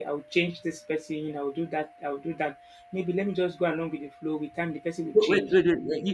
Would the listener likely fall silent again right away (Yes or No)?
No